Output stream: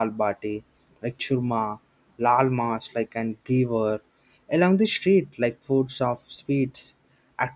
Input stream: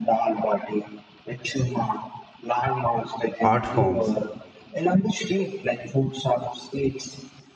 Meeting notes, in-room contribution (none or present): present